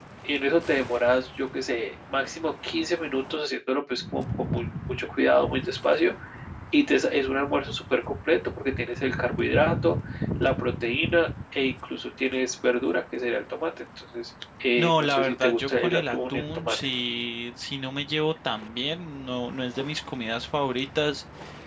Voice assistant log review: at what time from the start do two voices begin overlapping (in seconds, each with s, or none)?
14.8 s